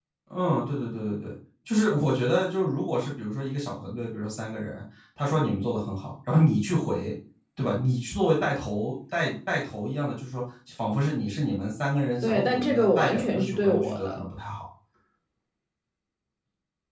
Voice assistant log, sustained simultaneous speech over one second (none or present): present